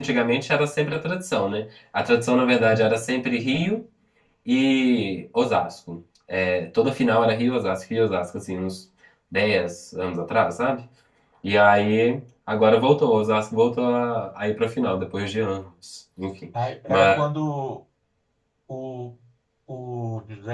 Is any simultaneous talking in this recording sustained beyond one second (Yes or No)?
No